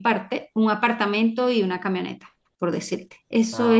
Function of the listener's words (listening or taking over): listening